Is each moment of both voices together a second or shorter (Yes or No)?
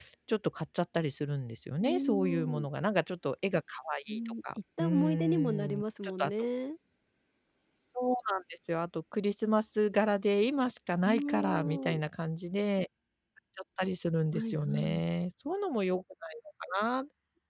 No